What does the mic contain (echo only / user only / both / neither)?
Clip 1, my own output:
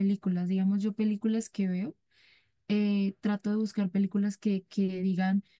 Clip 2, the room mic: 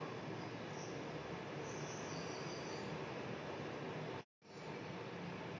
neither